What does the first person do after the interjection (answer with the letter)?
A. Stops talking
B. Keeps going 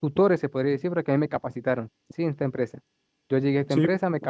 B